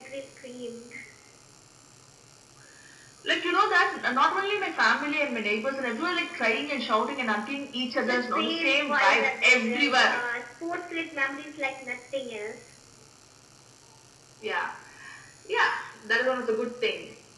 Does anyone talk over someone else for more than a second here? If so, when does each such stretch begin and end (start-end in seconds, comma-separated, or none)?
8.1-10.2